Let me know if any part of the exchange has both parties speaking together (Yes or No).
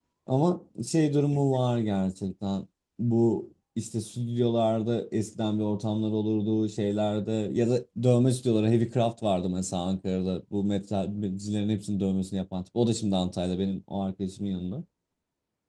No